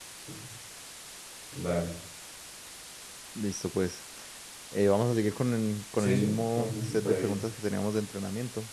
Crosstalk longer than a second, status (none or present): present